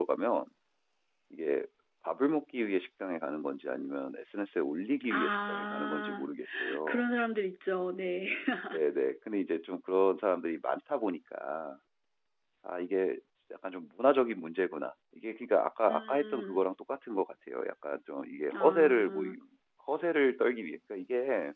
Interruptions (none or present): present